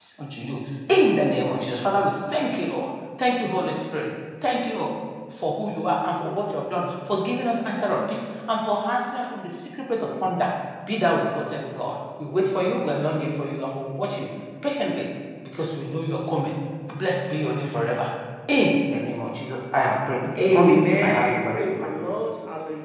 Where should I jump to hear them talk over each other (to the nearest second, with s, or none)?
20 s